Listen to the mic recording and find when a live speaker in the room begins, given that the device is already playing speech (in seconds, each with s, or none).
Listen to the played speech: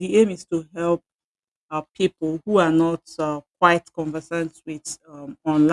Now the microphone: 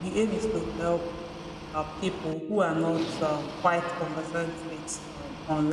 none